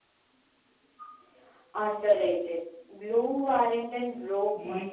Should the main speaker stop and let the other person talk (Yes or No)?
Yes